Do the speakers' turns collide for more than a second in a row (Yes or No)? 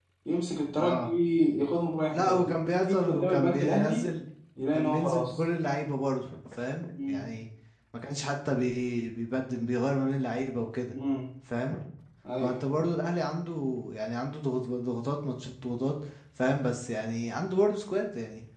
Yes